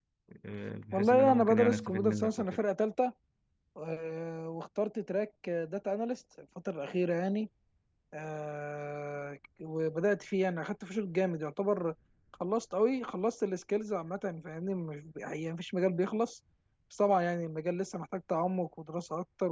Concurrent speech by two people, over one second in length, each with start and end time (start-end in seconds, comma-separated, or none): 0.9-2.6